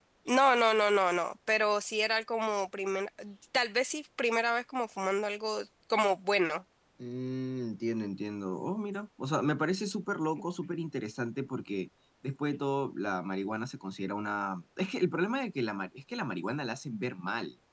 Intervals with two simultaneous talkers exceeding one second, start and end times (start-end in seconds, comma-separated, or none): none